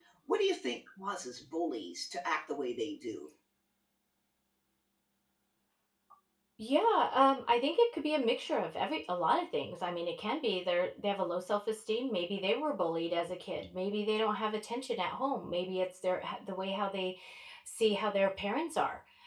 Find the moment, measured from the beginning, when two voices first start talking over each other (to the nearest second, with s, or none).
none